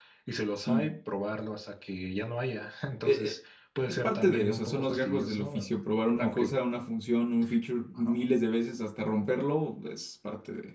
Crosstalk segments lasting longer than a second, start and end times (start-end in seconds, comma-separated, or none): 4.0-5.7